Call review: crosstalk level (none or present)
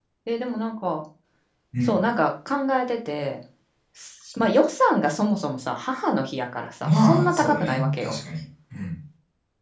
present